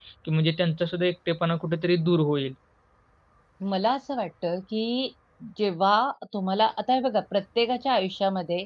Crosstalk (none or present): none